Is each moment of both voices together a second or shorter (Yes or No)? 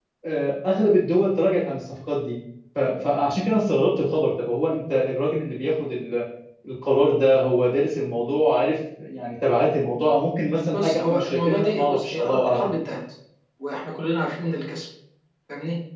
No